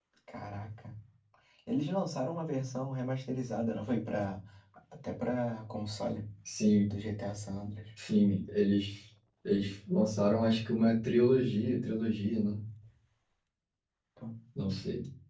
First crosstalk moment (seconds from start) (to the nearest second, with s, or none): none